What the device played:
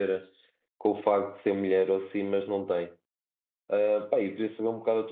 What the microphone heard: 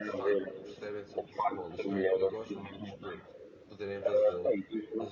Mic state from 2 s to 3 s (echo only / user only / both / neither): both